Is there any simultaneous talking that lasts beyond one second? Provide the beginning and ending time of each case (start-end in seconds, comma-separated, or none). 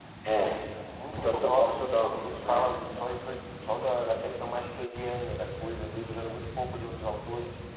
1.0-2.8